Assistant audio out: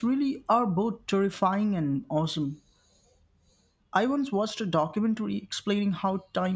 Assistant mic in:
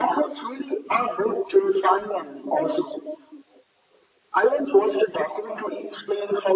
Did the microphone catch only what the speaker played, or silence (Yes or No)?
Yes